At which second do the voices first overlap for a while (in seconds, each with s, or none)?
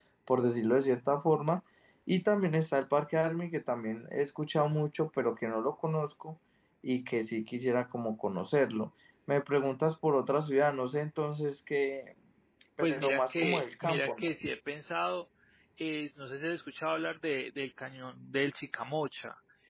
12.8 s